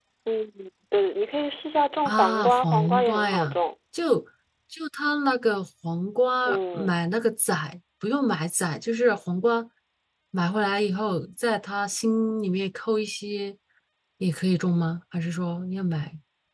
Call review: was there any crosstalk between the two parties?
Yes, from 2.0 s

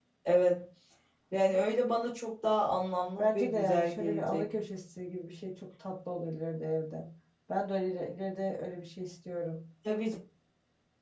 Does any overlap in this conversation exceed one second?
Yes, from 3.2 s

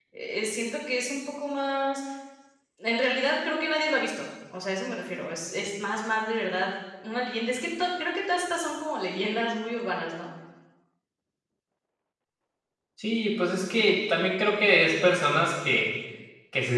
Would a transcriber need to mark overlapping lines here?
No

